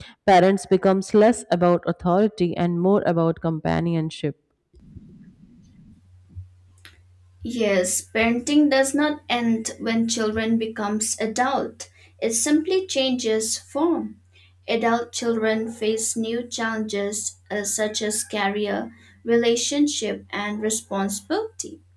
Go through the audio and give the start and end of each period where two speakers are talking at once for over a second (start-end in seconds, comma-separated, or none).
none